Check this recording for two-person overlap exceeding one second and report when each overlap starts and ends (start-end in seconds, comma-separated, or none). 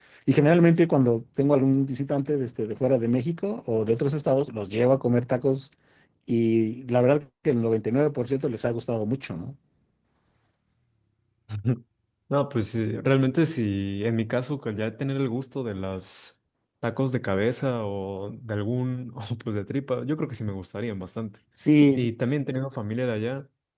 none